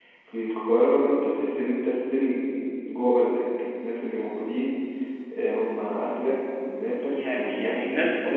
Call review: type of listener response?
taking over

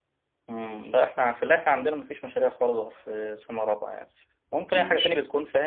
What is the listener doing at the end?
listening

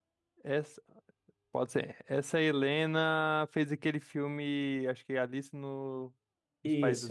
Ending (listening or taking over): taking over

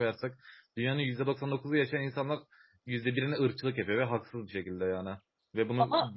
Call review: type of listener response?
listening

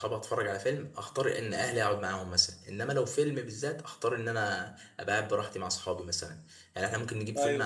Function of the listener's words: listening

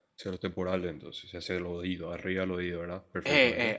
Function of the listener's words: taking over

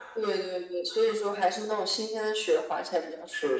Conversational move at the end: taking over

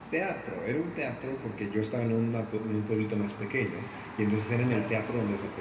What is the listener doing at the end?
listening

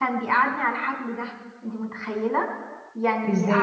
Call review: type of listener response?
listening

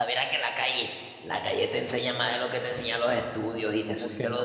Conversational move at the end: taking over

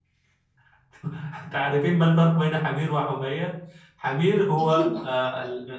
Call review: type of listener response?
listening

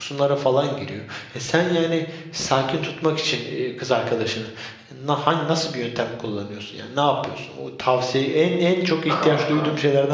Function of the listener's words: listening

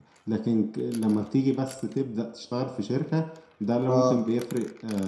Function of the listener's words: listening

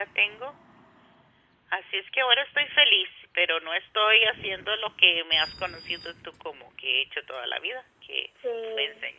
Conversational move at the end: taking over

